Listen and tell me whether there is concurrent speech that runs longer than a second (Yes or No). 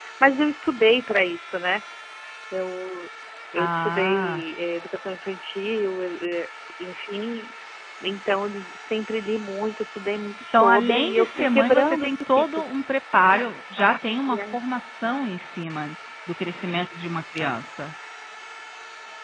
Yes